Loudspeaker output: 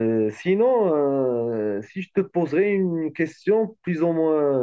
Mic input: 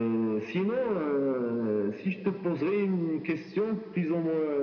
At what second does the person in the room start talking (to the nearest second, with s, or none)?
none